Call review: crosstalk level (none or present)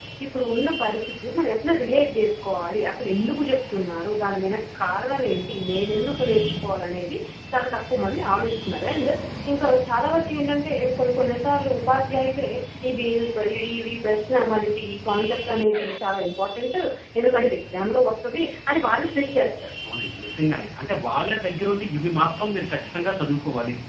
none